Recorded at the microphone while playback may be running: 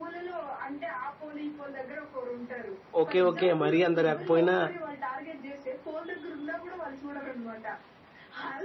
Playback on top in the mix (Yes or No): No